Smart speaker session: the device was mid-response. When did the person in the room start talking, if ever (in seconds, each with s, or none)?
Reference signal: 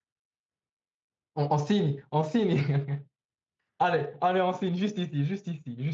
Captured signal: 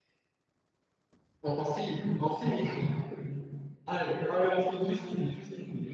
none